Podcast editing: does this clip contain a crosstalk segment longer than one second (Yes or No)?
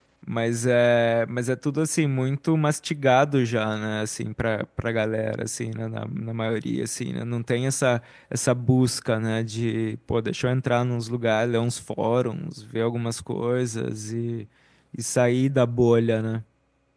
No